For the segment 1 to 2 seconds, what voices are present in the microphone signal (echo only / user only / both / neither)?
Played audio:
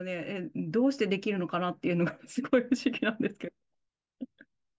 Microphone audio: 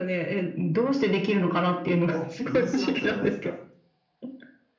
echo only